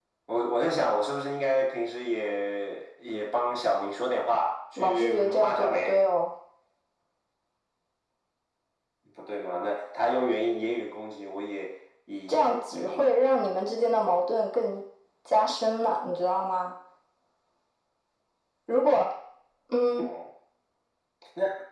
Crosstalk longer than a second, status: present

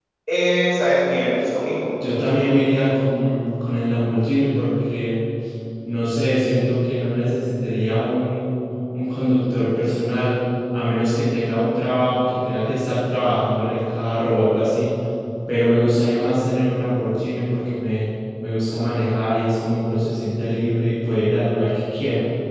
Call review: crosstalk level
none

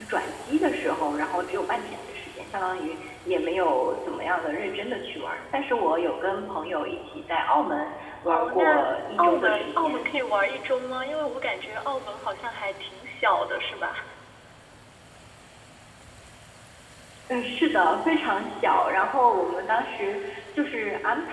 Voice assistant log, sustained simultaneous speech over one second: present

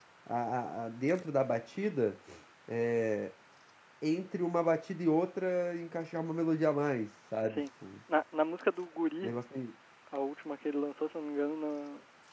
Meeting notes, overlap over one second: none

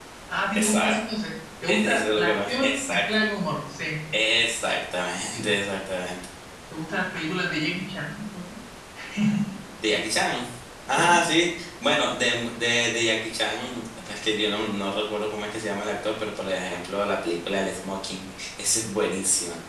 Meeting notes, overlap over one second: present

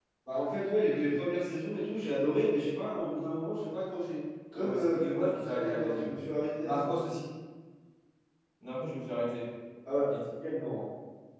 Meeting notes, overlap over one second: present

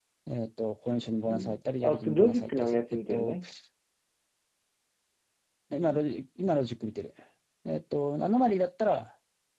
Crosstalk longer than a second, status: present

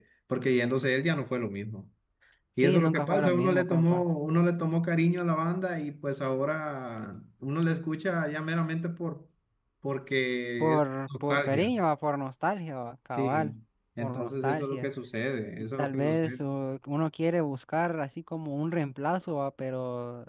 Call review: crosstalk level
present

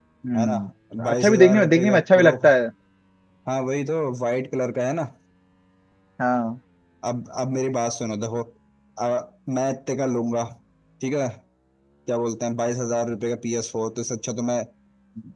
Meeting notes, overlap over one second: present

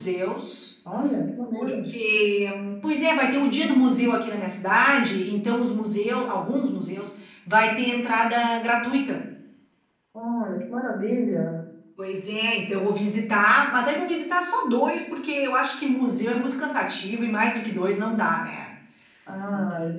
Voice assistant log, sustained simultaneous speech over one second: none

